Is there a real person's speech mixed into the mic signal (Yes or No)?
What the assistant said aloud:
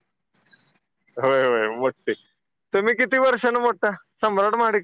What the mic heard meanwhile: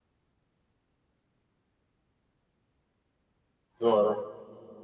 Yes